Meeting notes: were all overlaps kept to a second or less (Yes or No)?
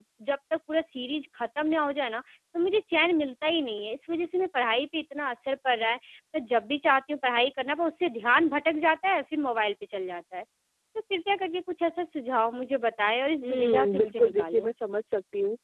No